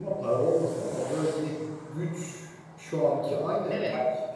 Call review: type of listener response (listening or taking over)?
listening